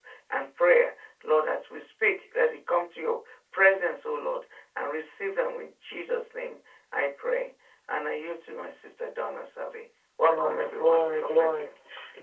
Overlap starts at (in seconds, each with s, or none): 10.2 s